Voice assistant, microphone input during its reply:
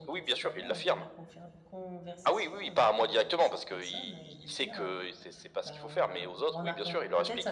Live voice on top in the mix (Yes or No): No